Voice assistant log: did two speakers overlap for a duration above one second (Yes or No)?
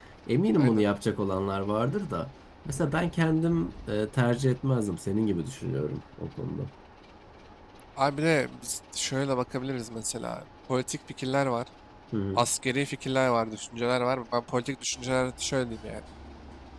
No